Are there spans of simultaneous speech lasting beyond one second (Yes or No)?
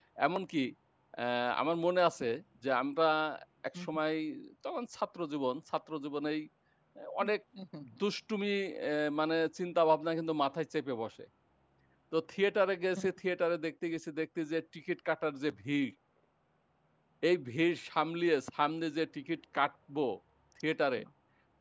No